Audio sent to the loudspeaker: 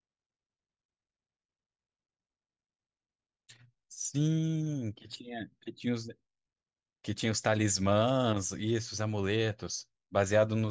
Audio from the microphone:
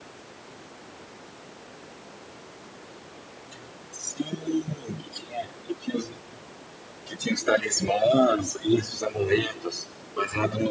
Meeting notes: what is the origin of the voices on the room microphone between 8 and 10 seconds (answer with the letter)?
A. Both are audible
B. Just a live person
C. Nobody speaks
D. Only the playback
D